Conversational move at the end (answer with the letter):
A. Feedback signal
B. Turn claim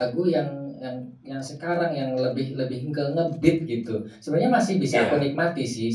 A